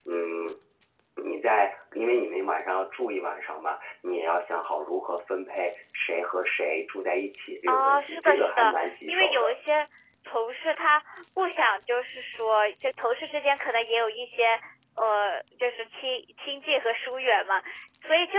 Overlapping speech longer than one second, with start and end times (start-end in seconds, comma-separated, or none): 7.7-9.5